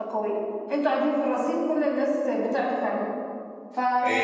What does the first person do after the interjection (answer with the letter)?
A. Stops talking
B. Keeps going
A